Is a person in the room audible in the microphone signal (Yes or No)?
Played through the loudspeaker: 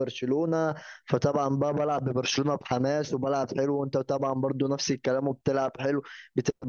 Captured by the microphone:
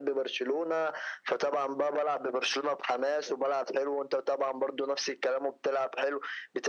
No